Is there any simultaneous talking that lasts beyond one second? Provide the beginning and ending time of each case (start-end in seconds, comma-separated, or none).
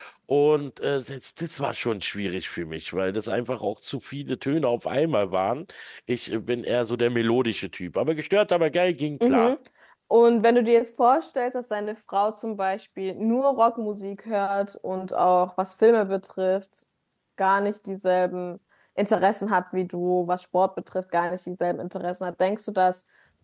none